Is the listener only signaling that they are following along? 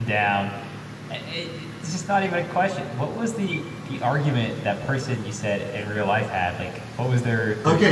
No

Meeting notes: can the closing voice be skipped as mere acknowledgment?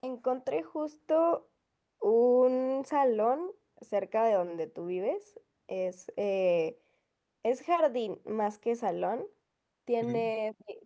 Yes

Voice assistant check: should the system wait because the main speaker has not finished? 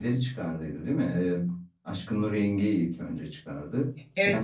No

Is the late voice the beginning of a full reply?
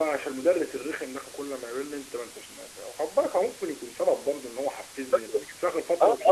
Yes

